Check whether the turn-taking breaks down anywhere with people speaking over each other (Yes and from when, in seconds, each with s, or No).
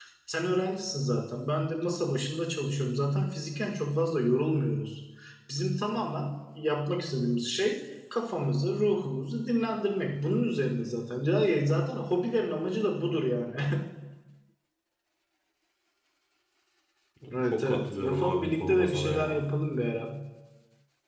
Yes, from 17.4 s